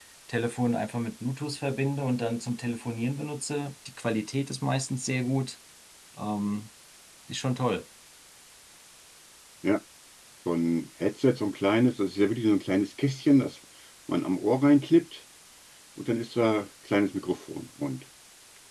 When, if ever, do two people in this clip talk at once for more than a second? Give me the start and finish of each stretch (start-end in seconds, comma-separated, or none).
none